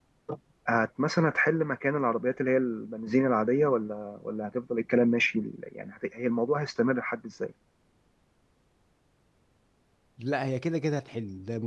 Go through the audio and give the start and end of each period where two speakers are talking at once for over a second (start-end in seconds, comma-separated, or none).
none